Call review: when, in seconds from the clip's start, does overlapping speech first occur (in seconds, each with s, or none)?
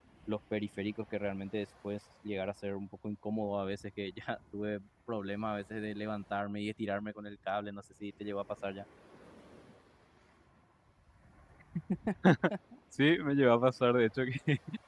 none